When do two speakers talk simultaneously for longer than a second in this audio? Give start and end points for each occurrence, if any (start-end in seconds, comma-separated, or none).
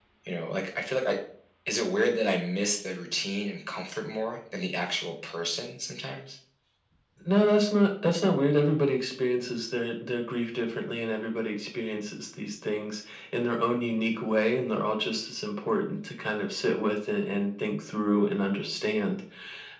none